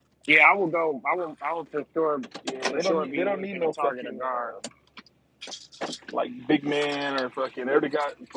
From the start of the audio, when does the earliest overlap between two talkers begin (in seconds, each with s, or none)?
2.7 s